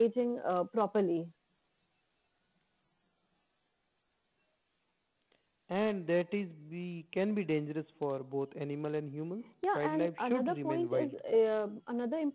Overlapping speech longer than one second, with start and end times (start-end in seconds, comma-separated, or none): 9.8-11.1